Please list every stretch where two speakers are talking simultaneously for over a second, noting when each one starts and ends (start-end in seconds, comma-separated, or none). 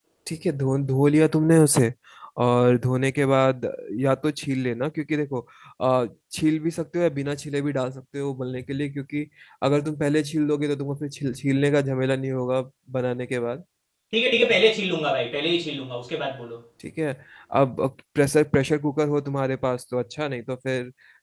none